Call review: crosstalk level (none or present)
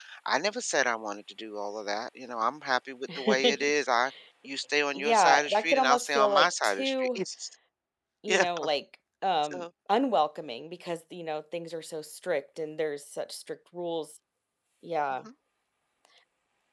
present